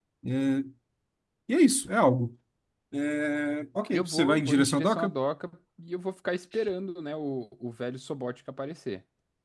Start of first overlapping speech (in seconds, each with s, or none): 3.9 s